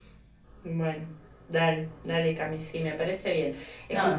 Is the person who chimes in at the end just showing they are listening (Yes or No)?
Yes